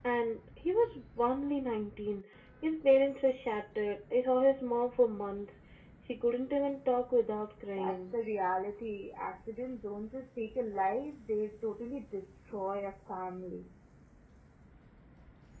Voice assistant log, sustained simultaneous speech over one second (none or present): none